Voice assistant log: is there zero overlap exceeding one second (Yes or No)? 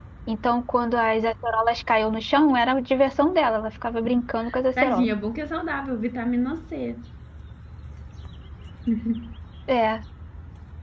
Yes